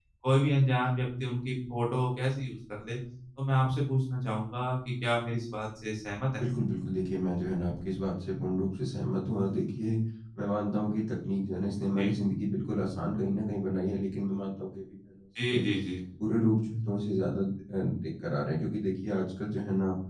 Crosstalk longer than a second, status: none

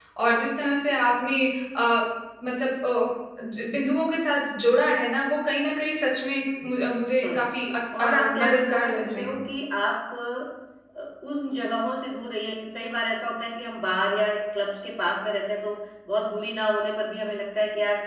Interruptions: present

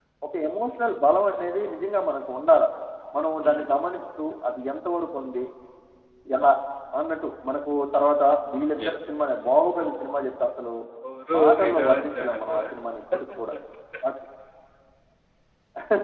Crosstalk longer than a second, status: present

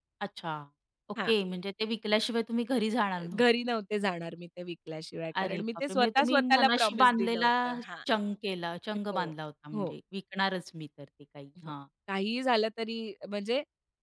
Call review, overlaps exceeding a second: present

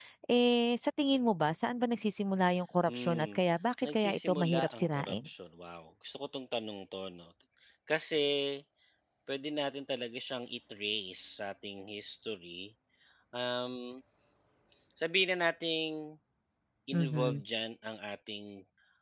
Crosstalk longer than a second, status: present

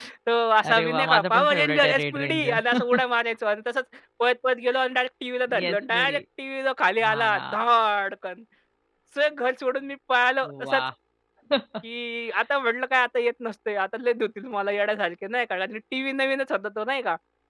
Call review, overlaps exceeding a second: present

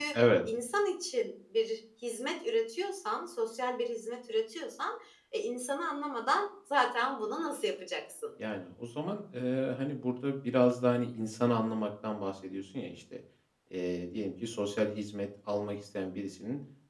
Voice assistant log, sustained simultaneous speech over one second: none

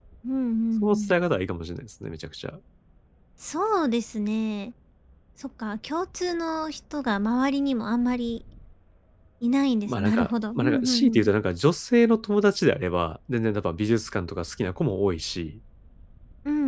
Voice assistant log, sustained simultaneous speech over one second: present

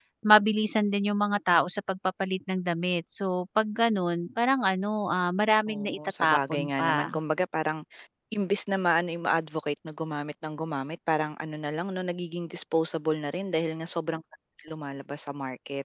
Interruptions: present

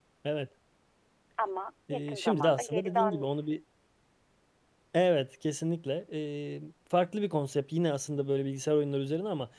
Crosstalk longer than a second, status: present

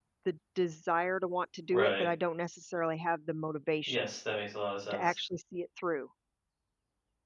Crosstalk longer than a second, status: none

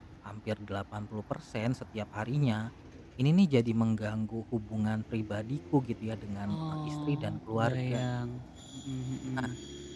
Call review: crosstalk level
present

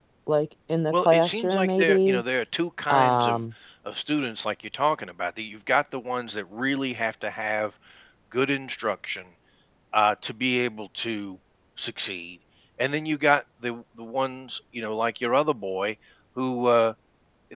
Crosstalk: present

